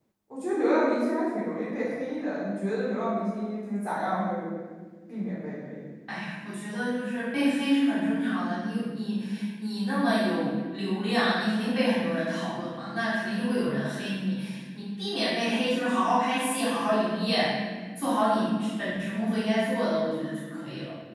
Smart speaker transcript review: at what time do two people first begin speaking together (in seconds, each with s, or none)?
none